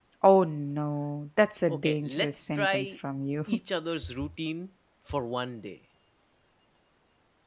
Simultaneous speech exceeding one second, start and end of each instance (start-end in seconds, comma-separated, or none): 1.7-3.0